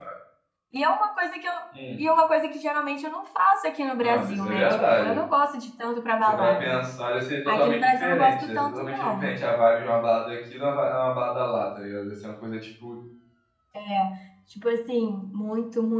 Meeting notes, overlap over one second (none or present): present